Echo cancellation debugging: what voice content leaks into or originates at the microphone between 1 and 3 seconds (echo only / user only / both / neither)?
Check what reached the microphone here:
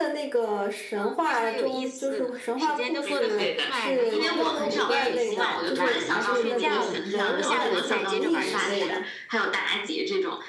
both